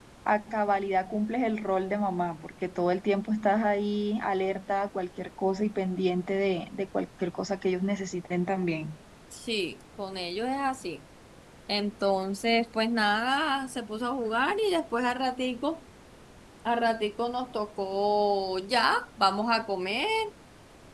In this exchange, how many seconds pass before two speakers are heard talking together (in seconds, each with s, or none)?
none